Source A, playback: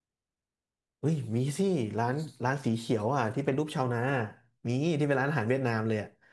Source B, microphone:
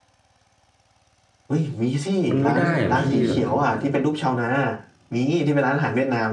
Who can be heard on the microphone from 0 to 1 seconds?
neither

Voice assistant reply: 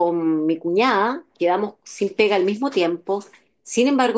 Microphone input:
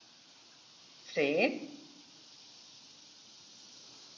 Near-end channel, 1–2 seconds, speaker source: user only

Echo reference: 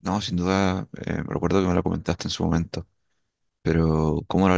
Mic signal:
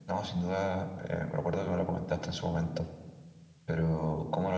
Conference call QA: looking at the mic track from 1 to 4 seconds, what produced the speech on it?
echo only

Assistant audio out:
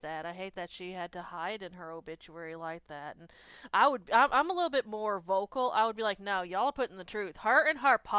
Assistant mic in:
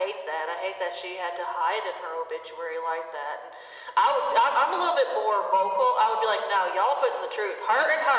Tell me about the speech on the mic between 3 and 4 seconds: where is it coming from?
echo only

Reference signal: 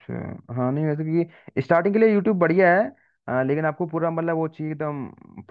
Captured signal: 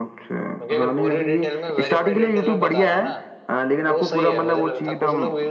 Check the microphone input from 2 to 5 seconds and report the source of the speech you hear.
both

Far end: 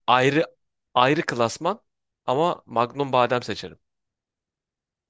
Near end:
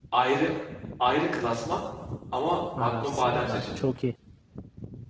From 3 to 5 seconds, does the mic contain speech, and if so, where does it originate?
both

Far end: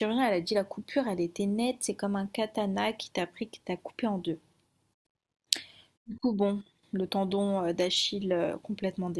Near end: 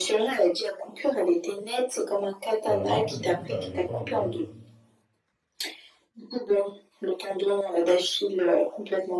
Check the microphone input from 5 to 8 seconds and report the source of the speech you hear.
echo only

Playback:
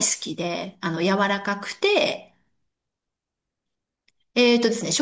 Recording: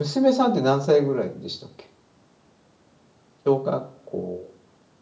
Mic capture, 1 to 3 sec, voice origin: user only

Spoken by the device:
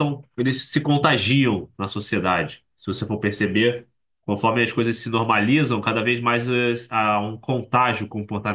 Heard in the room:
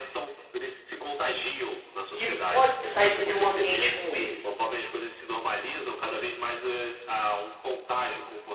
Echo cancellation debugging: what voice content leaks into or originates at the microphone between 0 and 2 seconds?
echo only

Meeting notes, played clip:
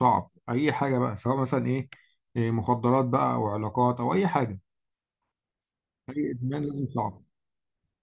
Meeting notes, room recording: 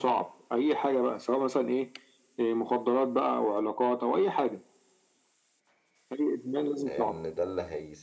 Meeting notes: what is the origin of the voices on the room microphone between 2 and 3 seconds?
echo only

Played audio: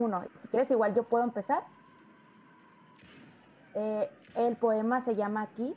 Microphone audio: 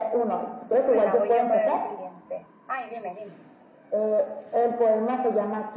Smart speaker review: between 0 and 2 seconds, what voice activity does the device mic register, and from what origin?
both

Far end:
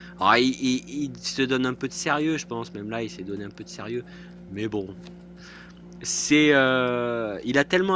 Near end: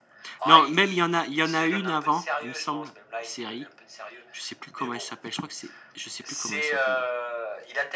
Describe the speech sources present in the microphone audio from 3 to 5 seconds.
both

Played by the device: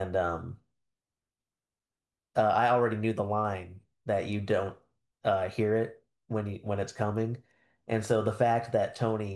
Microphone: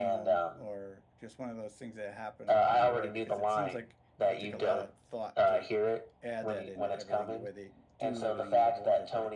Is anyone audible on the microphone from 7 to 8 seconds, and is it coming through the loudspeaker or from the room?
both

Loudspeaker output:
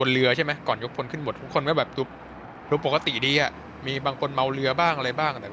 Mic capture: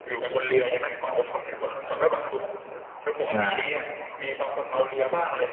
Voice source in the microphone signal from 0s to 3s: echo only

